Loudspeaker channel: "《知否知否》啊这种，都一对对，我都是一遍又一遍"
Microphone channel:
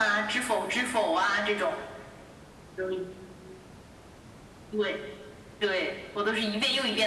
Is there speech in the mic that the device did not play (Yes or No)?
No